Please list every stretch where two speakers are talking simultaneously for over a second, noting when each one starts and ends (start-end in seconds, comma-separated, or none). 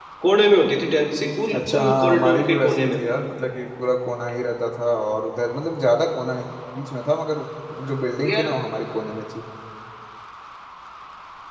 1.5-3.0